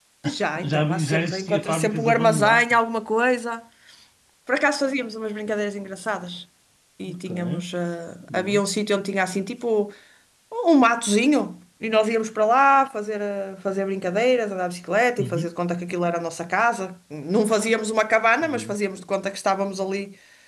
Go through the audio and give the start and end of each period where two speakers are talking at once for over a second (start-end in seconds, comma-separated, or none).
0.6-2.8